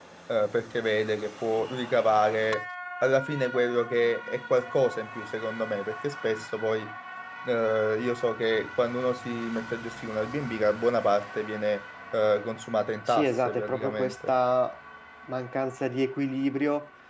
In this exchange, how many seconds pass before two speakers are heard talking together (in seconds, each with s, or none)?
13.1 s